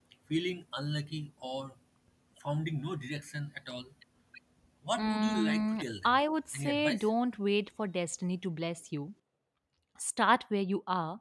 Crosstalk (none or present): present